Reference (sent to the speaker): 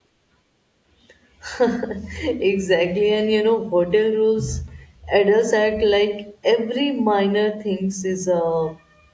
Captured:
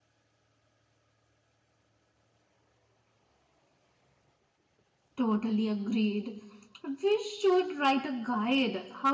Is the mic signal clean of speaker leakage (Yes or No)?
Yes